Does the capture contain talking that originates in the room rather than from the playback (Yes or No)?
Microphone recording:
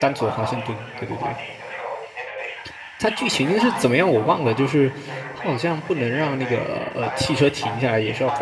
Yes